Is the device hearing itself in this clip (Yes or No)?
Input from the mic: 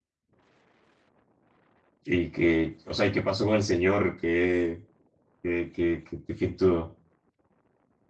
No